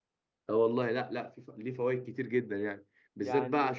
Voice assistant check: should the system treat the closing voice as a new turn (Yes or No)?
No